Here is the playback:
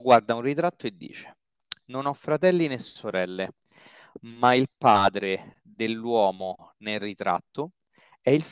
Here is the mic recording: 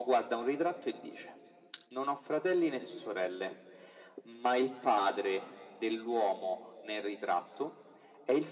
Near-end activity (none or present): none